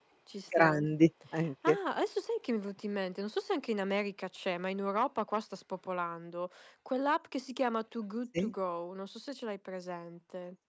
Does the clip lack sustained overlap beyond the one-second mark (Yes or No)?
Yes